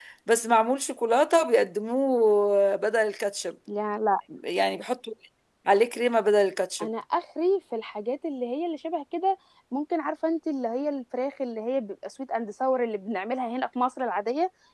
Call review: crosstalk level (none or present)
none